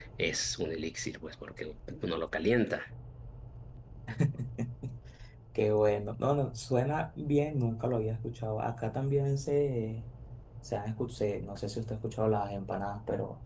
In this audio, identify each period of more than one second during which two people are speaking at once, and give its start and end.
none

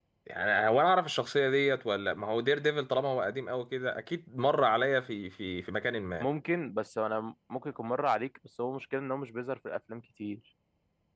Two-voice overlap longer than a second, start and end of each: none

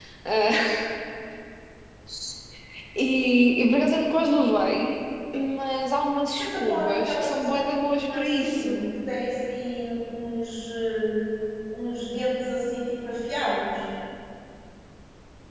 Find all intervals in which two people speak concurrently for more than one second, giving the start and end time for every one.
6.4-8.8

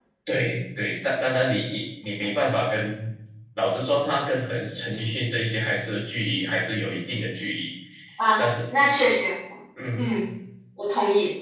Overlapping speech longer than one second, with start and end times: none

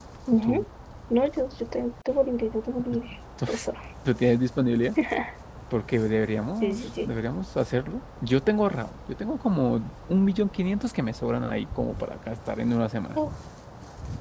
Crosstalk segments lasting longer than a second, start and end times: none

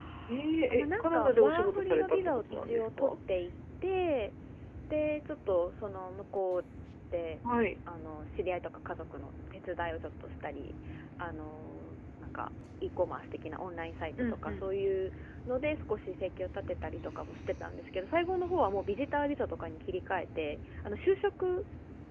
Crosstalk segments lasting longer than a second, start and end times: 0.7-3.1

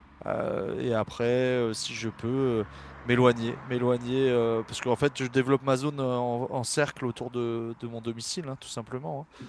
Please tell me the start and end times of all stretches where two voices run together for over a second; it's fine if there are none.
none

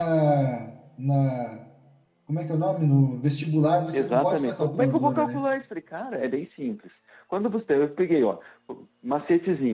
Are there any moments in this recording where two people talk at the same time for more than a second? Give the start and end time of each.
3.9-5.4

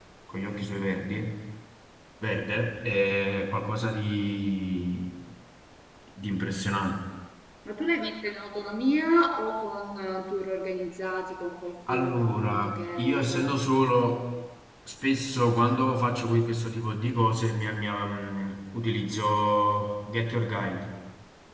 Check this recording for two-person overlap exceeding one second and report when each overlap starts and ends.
11.9-13.6

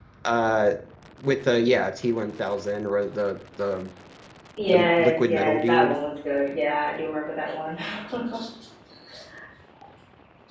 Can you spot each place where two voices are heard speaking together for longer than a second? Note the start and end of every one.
4.7-6.0

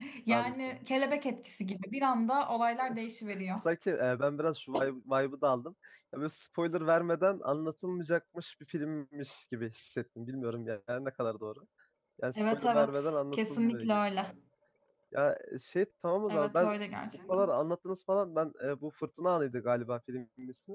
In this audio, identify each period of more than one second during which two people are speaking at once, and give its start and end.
12.4-14.3

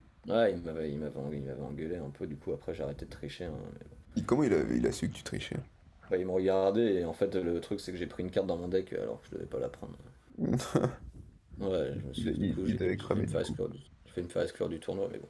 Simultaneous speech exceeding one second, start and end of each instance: 12.2-13.6

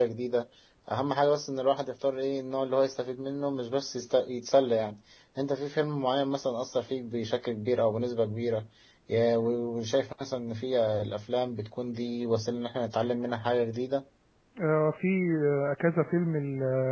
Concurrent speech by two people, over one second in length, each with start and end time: none

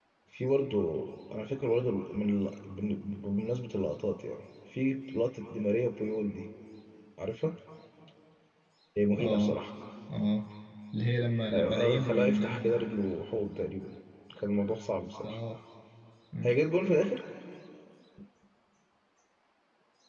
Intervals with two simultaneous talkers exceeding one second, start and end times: 11.5-12.8

